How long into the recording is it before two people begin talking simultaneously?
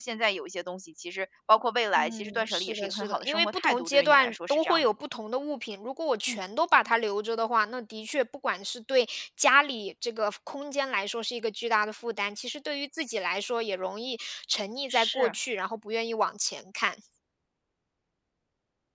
2.0 s

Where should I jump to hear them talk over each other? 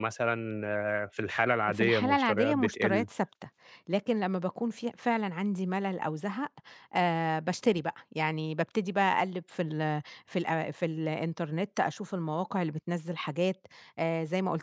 1.7 s

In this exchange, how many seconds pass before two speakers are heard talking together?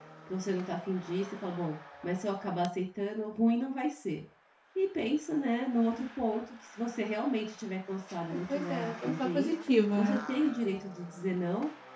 8.2 s

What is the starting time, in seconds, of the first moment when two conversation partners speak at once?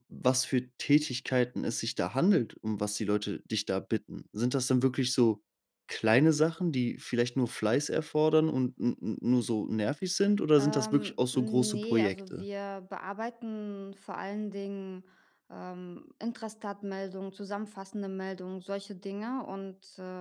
10.6 s

